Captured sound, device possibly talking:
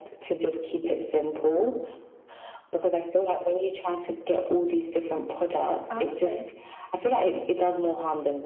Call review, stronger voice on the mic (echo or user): echo